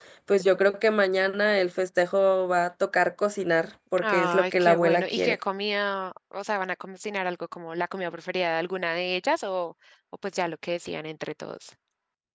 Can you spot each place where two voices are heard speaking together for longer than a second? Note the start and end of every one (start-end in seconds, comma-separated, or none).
4.0-5.4